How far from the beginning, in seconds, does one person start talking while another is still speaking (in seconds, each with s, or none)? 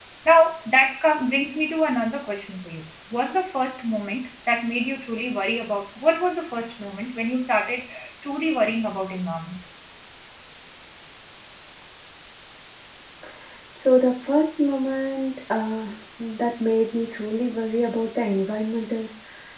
none